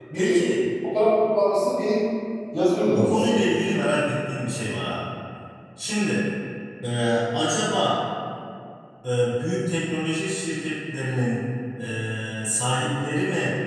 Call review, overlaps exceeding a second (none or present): none